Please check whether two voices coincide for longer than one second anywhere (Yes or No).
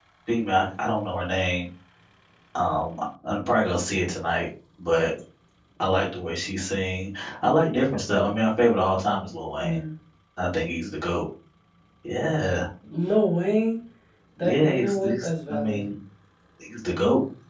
Yes